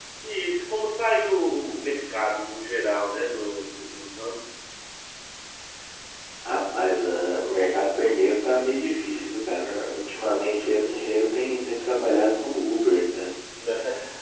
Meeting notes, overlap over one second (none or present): none